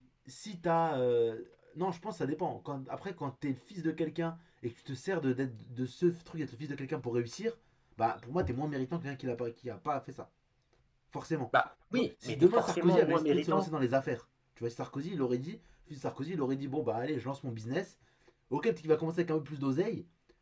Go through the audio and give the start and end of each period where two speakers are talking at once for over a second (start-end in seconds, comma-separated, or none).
11.9-13.7